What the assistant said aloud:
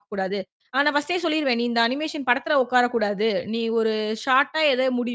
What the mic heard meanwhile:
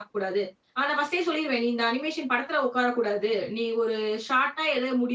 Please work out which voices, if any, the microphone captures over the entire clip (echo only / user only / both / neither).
echo only